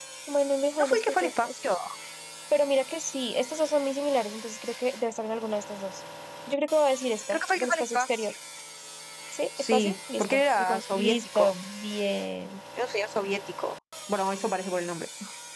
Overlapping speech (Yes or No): Yes